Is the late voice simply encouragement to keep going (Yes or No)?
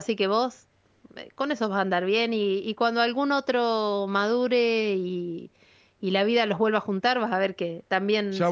No